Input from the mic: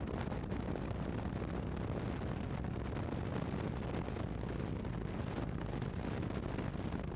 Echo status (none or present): none